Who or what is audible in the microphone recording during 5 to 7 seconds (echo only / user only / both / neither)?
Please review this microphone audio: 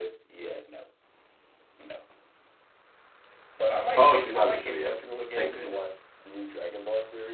both